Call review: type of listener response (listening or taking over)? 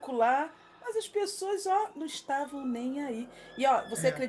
listening